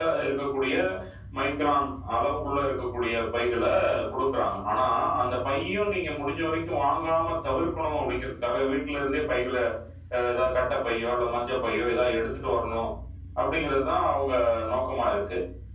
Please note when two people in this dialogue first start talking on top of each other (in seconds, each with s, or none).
none